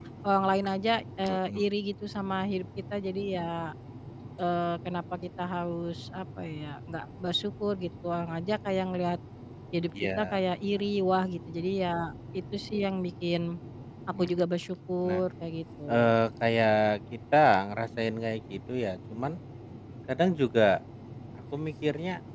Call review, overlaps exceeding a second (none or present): none